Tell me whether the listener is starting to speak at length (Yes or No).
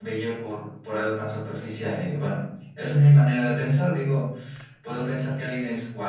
No